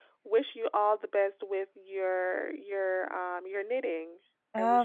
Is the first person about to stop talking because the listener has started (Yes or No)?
Yes